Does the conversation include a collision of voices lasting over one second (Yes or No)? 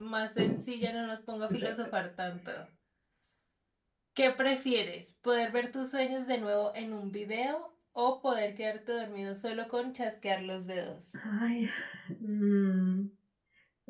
No